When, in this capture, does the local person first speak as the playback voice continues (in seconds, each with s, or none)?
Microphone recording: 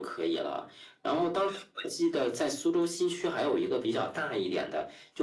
none